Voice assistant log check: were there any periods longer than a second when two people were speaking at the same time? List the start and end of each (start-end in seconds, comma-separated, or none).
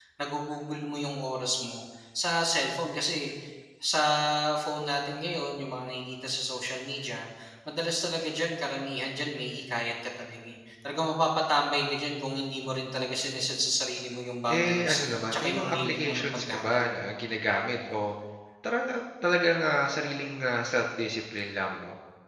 14.5-16.8